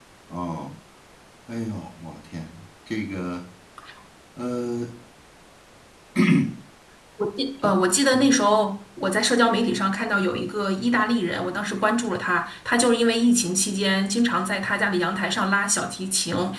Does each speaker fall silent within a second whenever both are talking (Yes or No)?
Yes